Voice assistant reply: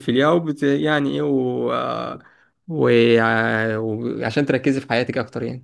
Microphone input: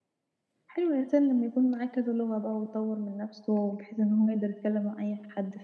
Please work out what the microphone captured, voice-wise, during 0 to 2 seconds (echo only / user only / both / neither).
user only